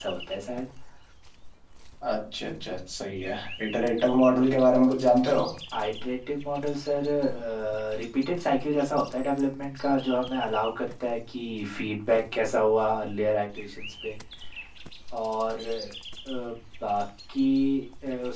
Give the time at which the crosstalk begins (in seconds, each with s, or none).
none